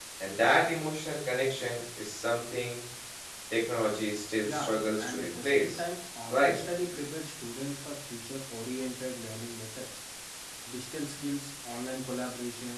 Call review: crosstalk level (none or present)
present